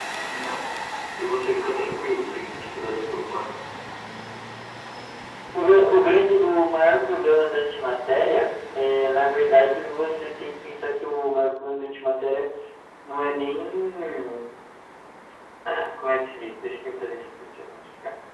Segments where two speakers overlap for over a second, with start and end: none

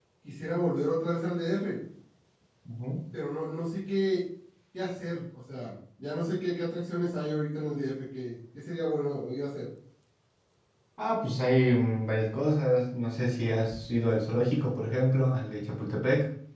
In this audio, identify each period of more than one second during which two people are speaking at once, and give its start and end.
none

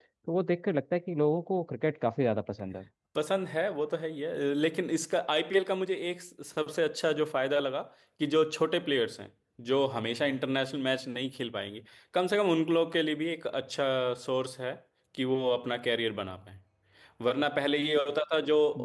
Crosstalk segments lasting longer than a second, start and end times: none

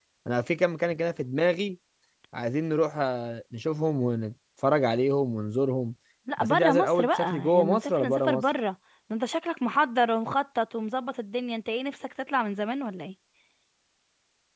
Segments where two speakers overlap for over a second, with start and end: 6.4-8.4

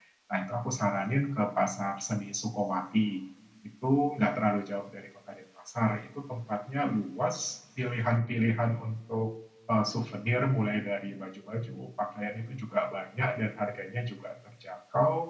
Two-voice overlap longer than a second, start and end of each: none

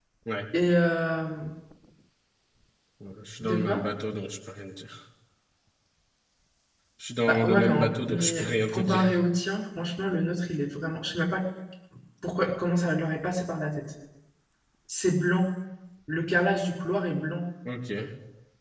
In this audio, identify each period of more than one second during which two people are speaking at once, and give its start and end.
7.3-9.0

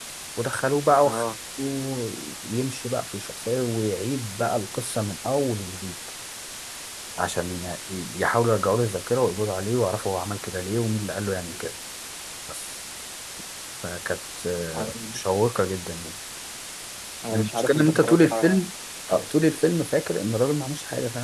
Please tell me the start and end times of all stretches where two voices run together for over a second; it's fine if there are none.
17.3-18.7

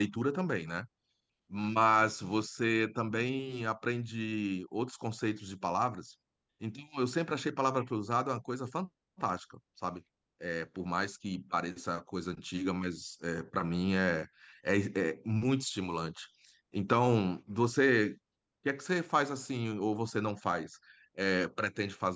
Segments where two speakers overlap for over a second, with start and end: none

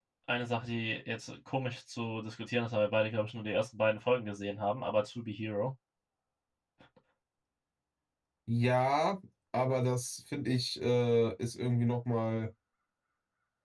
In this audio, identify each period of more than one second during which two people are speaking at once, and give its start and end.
none

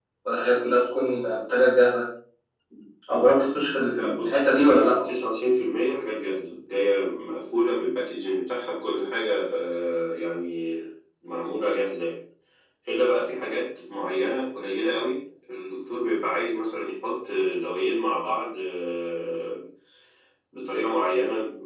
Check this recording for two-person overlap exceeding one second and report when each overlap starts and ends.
3.9-5.1

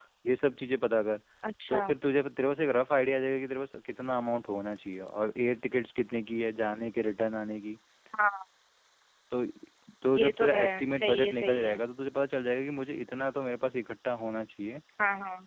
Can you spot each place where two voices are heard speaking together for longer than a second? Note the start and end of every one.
10.2-11.8

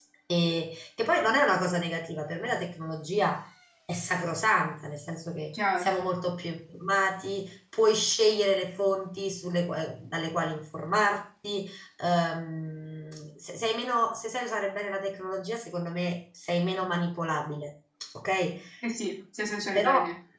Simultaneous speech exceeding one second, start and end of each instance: none

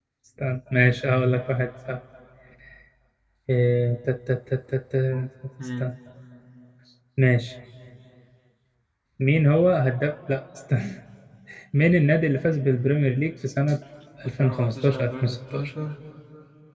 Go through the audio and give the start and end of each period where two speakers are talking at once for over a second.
14.2-15.7

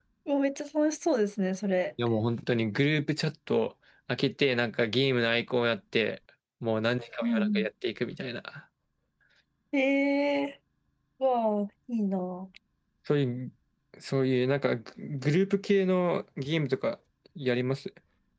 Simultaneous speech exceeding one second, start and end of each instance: none

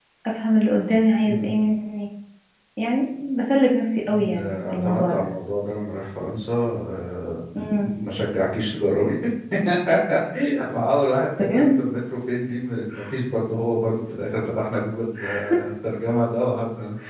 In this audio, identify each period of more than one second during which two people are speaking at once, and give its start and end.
4.0-5.3

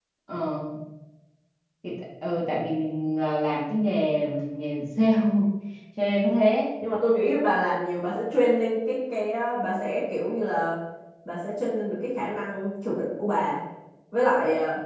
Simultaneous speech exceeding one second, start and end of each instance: none

